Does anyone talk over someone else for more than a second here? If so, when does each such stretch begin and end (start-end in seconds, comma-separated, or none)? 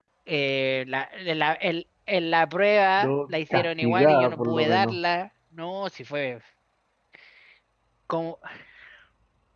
3.0-5.0